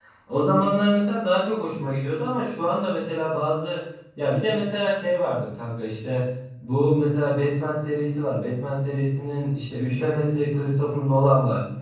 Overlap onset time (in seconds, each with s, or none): none